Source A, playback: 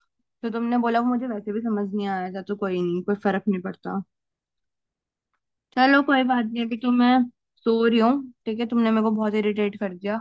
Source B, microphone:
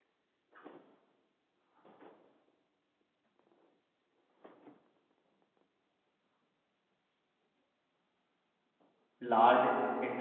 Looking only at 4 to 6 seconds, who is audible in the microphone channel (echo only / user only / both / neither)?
neither